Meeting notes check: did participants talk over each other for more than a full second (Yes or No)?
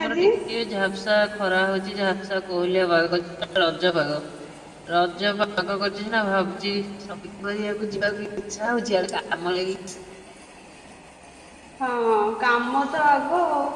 No